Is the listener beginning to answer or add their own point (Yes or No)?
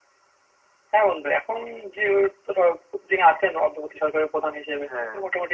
No